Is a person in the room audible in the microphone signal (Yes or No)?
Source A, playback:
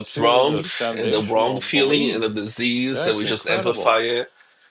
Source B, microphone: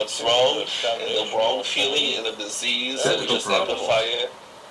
Yes